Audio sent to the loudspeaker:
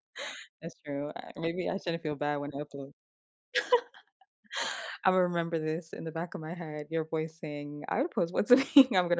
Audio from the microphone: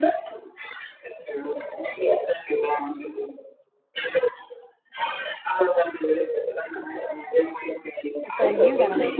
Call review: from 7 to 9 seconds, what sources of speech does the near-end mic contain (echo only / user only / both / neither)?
both